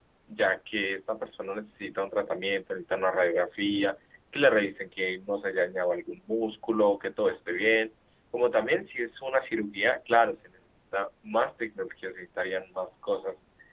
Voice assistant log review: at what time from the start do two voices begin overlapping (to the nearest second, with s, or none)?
none